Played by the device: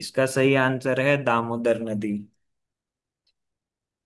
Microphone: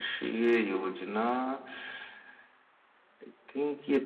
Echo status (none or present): none